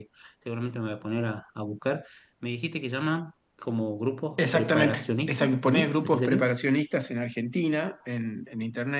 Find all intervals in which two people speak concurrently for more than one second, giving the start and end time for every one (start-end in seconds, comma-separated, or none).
4.5-6.5